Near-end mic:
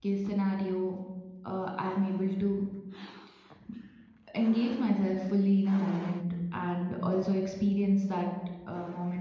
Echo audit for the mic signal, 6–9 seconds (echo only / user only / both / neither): user only